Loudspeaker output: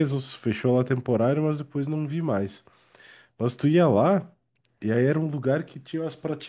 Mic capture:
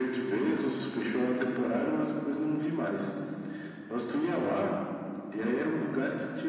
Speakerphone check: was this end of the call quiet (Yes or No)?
Yes